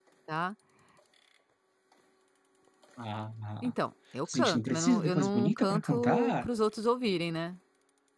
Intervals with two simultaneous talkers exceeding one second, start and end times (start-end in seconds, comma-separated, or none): 4.3-6.5